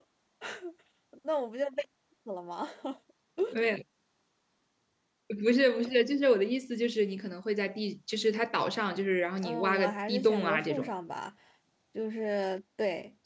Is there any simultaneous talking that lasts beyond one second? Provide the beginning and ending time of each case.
9.4-10.9

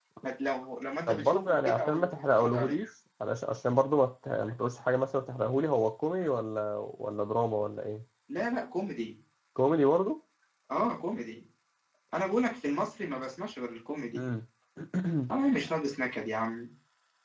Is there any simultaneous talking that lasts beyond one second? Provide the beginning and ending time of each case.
1.1-2.8

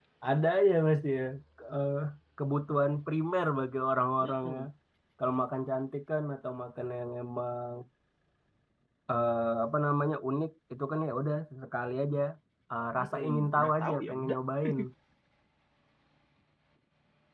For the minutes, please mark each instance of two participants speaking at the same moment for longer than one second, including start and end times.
13.0-14.4

